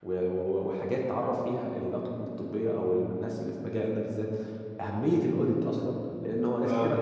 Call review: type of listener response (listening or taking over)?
listening